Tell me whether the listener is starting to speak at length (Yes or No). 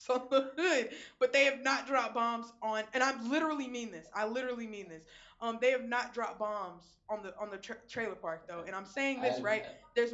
No